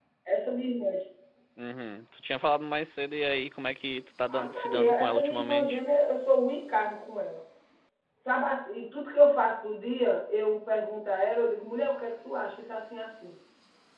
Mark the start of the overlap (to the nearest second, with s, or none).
4 s